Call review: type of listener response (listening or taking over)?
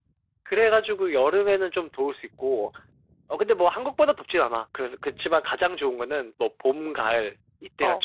taking over